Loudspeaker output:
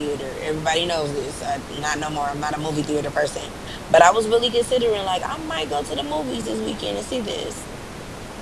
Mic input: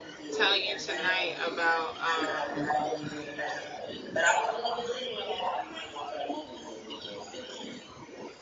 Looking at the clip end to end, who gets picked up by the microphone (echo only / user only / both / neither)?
both